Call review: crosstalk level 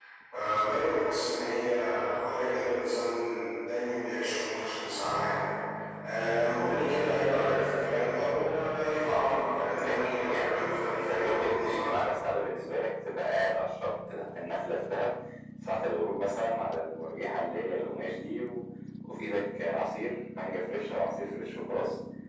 present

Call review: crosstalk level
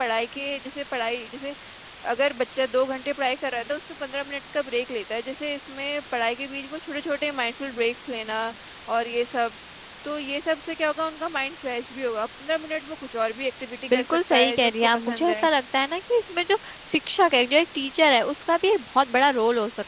present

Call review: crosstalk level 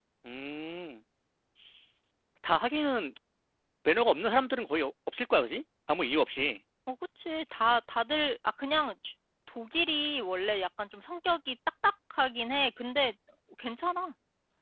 none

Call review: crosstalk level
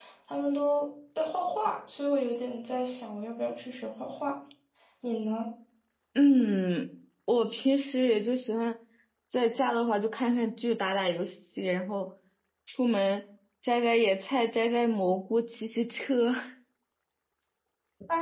none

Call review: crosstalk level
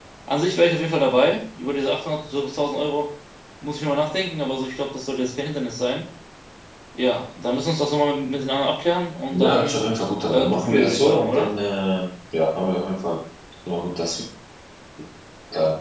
present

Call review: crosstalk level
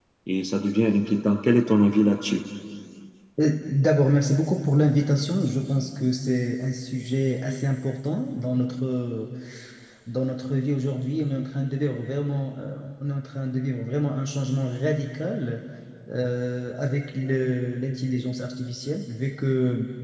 none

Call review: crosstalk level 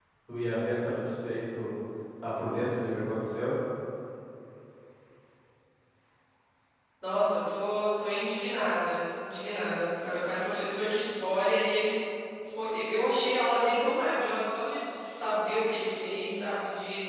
none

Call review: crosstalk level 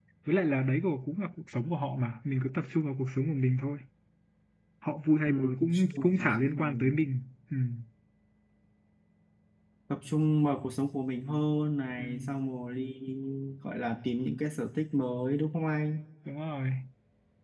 present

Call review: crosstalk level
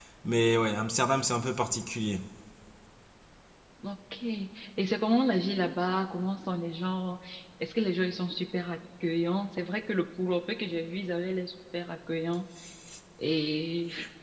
none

